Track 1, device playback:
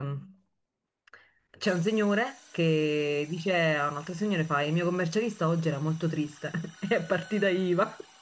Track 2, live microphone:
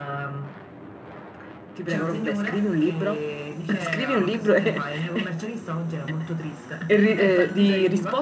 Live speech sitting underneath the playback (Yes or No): No